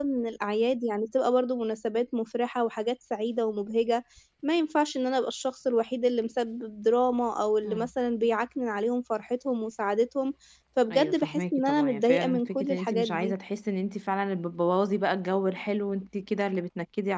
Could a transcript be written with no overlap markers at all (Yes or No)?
No